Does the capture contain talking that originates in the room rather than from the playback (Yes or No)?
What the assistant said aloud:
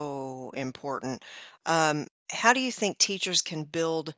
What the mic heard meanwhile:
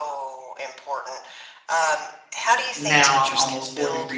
Yes